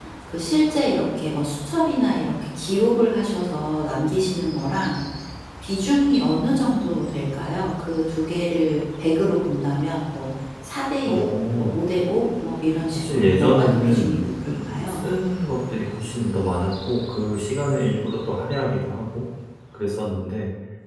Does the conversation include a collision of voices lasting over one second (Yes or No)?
Yes